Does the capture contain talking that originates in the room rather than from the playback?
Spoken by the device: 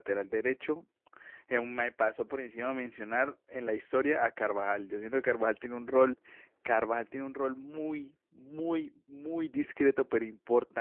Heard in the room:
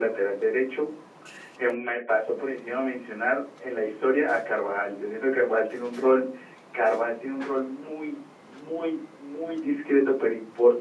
No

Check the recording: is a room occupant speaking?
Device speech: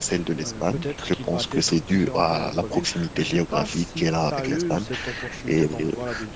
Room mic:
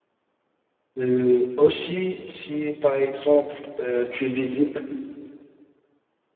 Yes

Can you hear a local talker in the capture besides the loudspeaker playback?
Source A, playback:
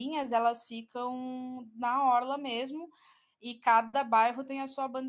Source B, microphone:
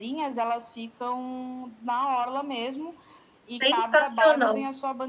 Yes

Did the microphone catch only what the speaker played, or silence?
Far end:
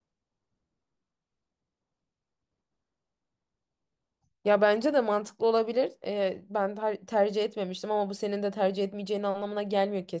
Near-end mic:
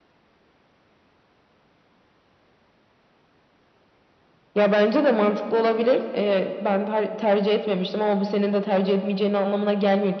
Yes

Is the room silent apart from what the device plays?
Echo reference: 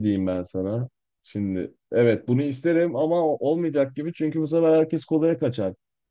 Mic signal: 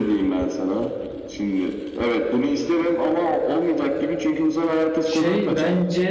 No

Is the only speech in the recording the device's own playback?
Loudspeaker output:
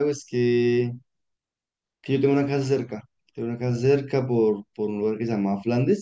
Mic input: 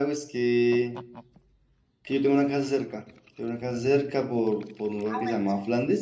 No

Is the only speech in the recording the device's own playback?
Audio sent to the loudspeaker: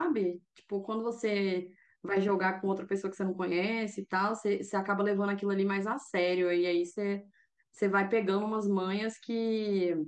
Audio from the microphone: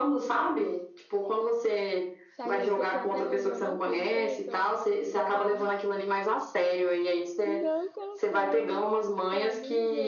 No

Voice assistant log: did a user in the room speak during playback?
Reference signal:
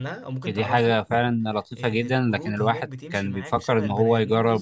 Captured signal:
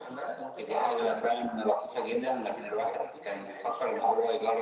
No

